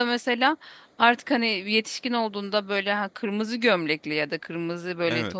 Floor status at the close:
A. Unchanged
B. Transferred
A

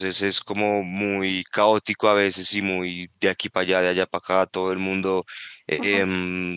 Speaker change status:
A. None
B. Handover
A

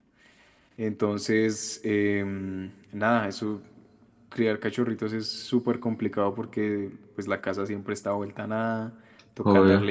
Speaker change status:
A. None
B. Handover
A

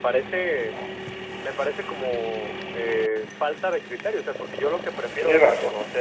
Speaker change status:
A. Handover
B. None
B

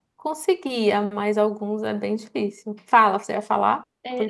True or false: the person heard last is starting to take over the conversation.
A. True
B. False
A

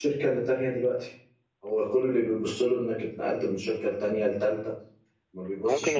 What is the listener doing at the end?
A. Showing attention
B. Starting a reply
B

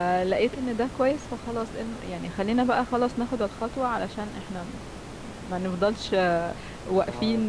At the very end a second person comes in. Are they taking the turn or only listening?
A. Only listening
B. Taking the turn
A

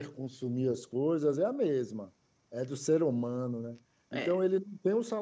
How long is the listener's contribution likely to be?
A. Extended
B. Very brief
B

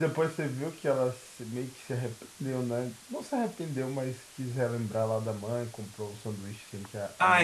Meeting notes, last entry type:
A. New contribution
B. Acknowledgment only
A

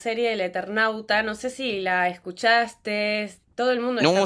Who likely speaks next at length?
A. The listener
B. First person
A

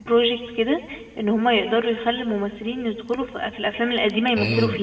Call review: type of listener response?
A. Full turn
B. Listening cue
A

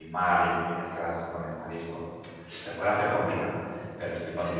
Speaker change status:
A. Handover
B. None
B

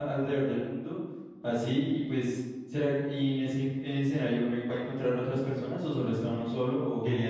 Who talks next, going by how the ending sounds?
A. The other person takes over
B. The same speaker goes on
A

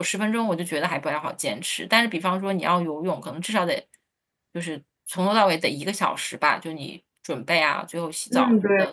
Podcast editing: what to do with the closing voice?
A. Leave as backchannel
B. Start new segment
B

